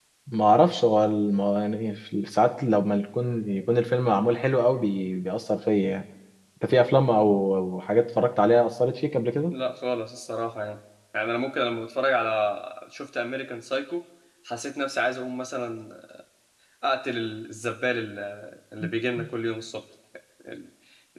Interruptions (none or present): none